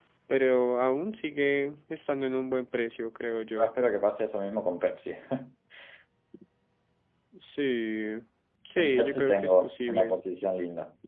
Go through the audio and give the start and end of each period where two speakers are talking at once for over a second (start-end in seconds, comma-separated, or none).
8.8-10.2